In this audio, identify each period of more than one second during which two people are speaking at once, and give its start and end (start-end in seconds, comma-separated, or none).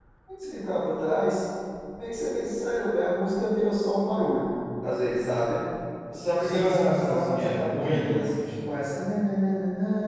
6.4-8.2